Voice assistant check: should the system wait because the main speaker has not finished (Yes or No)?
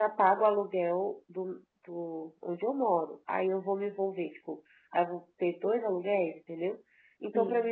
Yes